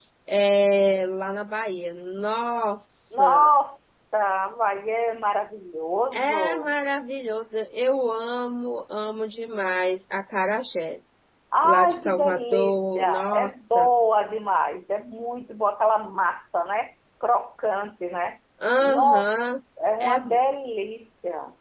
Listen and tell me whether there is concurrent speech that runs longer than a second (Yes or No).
Yes